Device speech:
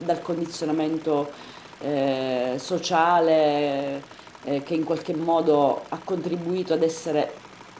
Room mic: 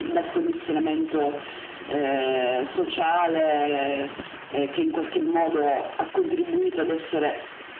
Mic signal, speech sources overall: echo only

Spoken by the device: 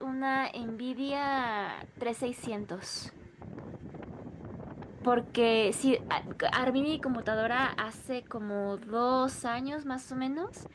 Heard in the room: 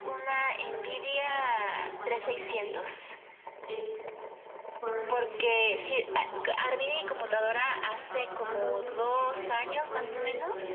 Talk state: both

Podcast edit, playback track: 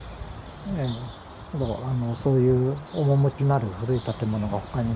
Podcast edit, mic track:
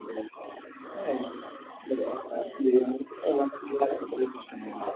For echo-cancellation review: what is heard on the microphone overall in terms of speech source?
both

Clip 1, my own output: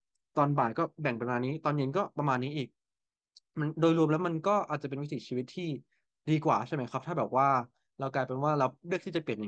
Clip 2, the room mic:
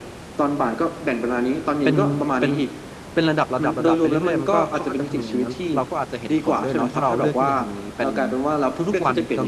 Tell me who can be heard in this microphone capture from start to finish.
both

